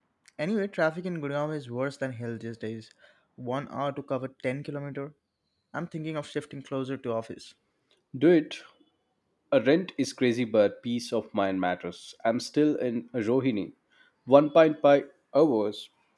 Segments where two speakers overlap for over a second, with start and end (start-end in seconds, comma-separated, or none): none